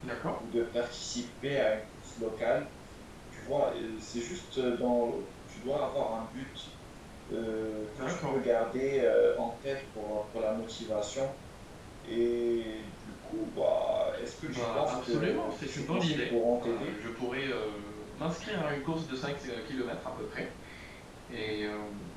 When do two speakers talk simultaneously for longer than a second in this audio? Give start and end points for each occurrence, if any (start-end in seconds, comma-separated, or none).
14.5-16.9